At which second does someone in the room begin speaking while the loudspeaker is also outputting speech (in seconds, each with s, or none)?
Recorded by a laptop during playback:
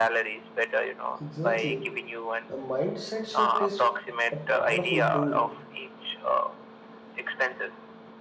1.2 s